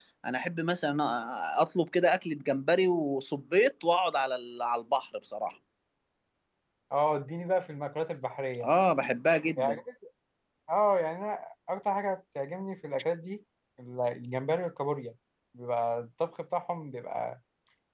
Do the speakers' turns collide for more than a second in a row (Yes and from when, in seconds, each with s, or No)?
No